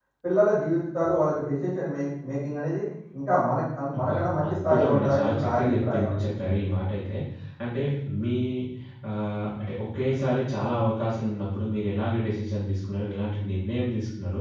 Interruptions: present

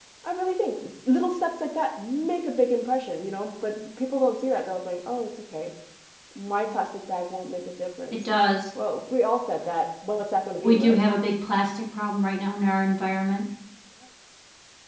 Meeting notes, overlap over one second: none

